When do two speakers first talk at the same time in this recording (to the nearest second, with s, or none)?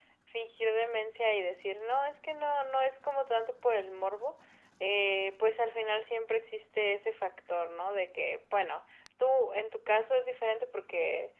none